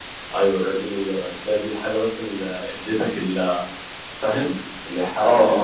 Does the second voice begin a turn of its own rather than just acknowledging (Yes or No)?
Yes